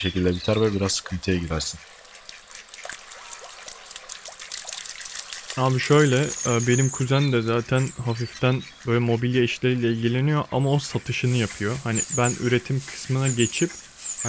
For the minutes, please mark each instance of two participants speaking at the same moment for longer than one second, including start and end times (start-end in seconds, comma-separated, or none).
none